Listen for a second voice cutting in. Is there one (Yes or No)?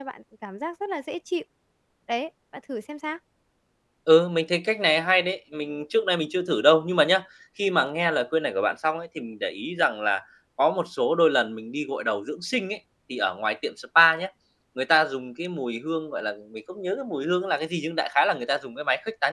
No